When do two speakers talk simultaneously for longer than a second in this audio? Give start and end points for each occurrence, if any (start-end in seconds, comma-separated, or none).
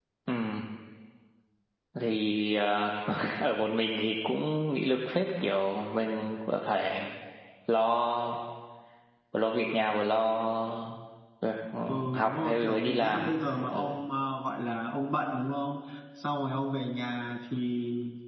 12.1-13.9